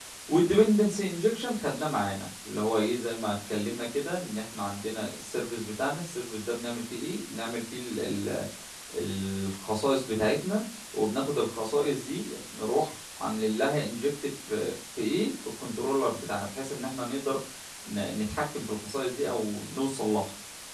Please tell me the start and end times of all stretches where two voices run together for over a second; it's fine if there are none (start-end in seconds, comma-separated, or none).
none